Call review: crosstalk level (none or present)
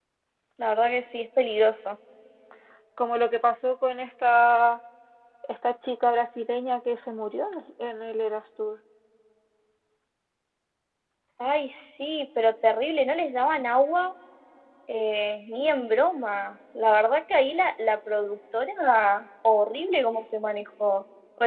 none